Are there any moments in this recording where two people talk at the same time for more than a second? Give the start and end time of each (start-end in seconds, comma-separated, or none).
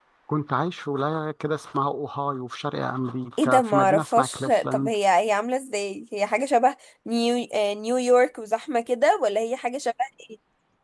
3.4-4.9